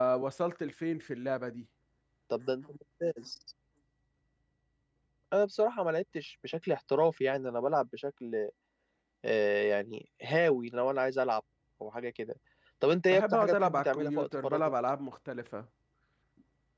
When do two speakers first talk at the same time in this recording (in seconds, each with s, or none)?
13.1 s